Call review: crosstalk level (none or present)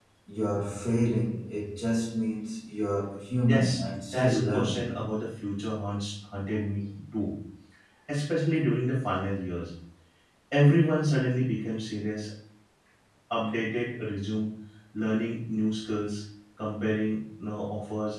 present